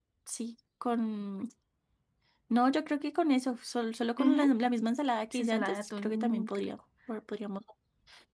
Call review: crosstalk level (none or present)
present